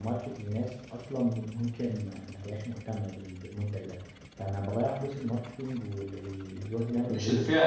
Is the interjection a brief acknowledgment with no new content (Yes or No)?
No